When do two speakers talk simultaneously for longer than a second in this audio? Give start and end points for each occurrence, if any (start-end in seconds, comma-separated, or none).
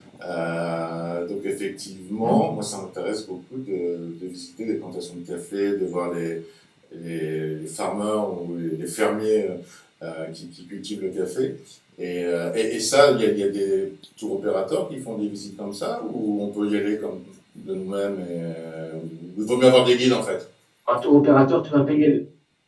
none